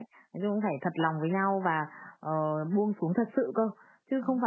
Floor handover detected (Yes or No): No